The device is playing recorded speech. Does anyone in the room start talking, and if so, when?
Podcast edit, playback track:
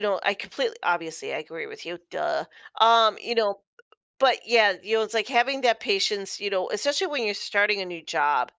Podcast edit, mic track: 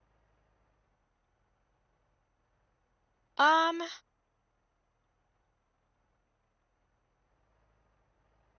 3 s

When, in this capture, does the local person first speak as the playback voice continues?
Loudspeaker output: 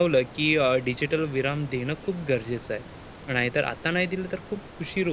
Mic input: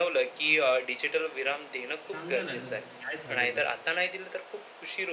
2 s

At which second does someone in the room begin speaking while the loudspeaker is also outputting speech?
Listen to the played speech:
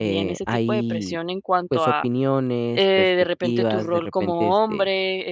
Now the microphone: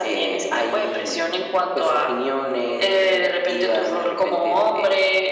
none

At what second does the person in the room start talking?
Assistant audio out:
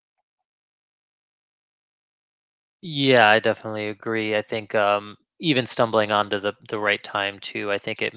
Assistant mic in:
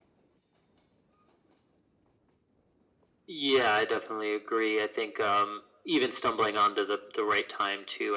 none

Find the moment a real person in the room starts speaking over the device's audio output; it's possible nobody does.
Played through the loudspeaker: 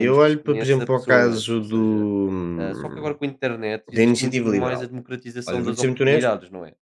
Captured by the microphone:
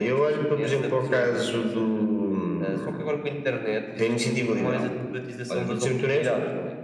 none

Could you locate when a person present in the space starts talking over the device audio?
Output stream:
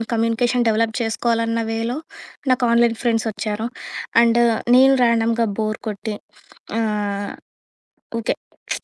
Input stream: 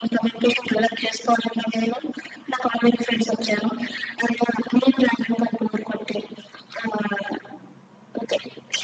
none

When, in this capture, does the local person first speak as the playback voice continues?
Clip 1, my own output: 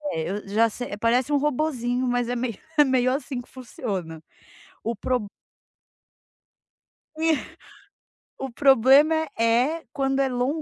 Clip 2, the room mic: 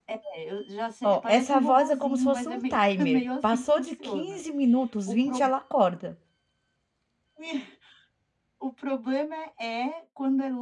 1 s

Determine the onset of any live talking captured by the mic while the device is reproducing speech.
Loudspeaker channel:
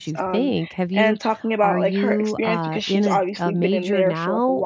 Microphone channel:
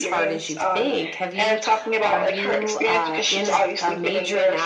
none

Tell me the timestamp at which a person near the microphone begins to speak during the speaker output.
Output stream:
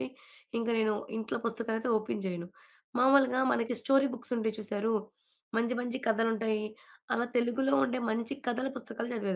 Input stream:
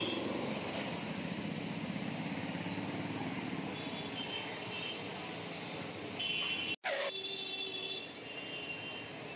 none

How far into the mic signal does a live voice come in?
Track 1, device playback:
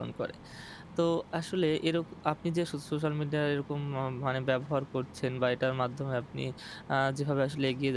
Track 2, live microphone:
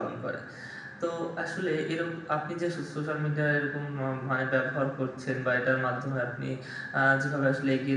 none

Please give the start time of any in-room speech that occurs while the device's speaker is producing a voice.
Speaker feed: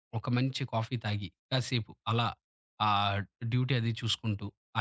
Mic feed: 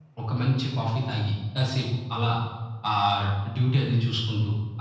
none

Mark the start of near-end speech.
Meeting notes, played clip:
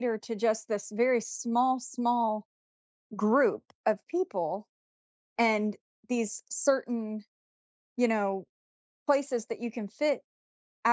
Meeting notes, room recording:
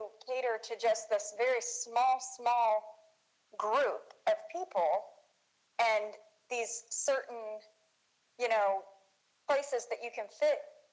none

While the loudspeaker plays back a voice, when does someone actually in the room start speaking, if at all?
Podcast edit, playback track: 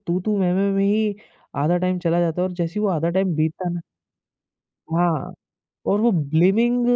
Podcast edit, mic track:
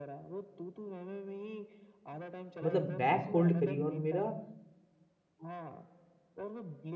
3 s

